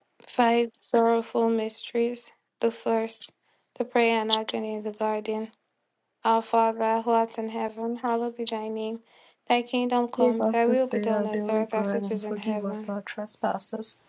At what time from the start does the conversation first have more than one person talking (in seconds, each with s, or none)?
10.2 s